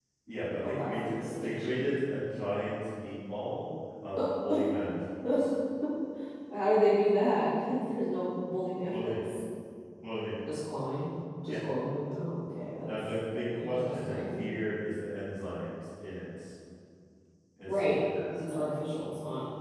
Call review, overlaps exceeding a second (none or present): present